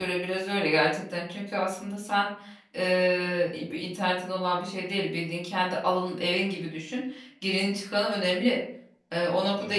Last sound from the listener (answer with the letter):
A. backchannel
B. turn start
A